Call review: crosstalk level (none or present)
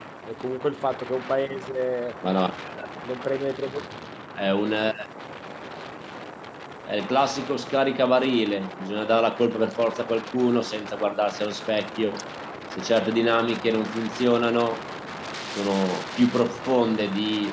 none